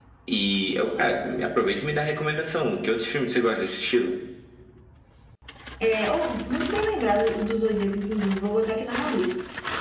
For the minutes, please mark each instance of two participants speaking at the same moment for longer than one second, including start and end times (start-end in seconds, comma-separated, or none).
none